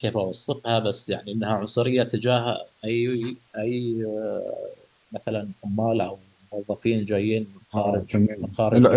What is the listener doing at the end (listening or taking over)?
taking over